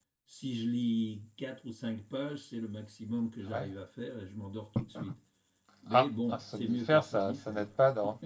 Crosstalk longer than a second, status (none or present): present